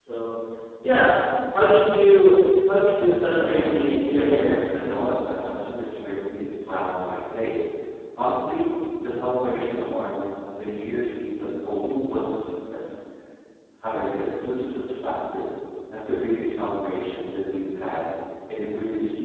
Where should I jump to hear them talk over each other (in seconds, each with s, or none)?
3.4 s